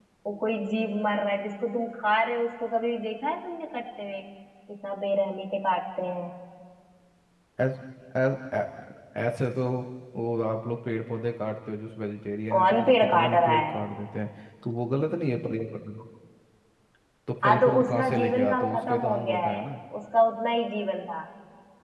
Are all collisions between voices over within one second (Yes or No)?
No